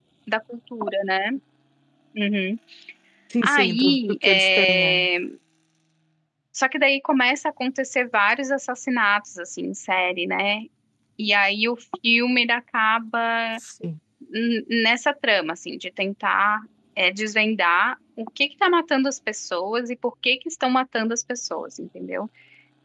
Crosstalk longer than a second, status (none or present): present